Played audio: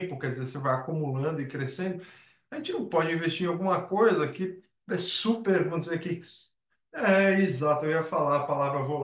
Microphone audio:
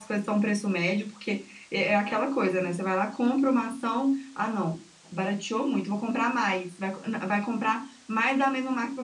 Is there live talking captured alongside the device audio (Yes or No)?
Yes